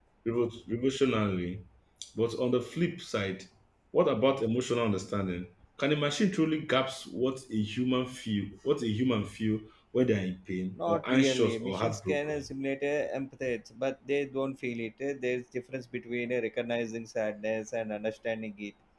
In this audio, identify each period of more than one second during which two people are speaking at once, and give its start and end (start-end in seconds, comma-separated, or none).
10.7-12.5